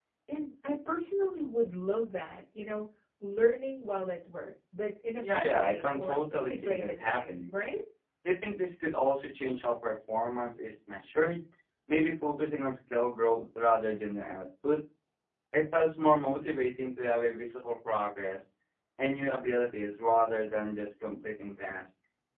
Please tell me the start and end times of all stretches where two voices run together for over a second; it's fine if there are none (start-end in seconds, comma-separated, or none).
5.2-7.4